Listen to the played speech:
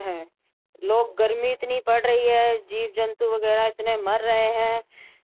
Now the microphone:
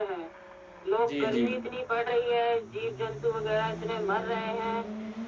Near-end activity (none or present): present